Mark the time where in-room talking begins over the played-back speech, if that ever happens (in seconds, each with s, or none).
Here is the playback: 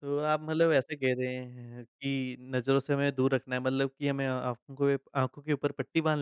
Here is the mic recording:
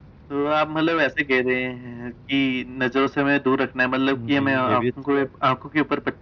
4.1 s